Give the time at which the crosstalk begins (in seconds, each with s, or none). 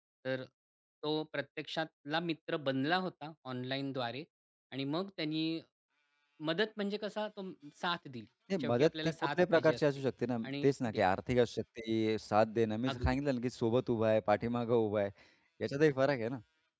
8.6 s